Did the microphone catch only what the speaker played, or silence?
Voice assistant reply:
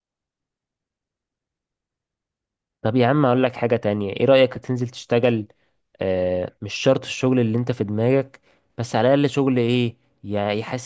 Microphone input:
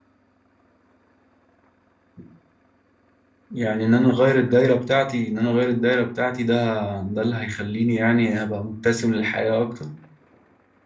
No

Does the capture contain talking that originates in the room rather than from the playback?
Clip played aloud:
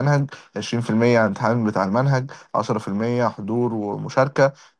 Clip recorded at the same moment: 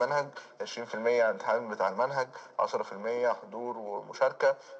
No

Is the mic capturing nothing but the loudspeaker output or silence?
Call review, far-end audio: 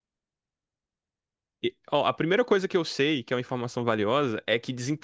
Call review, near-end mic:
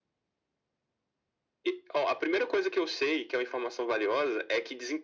Yes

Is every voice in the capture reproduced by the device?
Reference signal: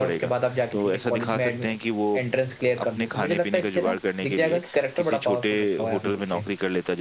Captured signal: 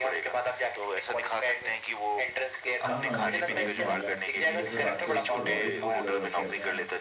No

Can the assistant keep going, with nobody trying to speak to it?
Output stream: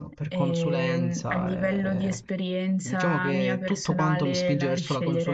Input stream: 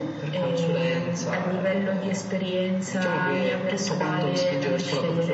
Yes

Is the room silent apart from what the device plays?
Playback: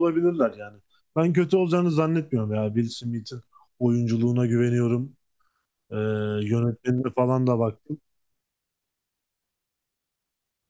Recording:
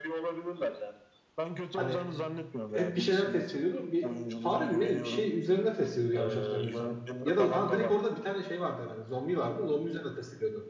No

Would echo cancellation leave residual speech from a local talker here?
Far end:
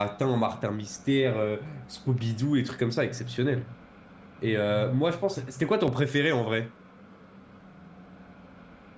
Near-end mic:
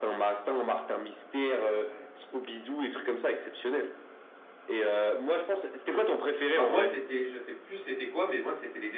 Yes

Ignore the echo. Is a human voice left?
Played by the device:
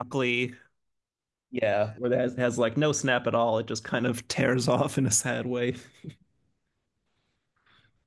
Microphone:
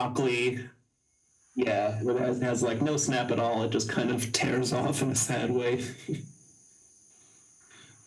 No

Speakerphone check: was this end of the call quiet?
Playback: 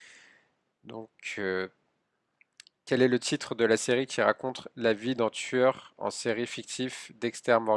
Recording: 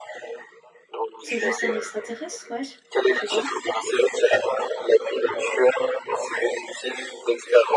No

